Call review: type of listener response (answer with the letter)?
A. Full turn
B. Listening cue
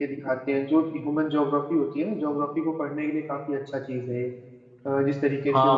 A